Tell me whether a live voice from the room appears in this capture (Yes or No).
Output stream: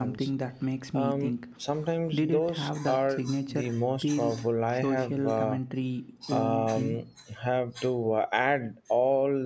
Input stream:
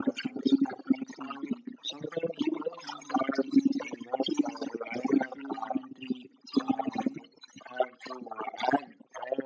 No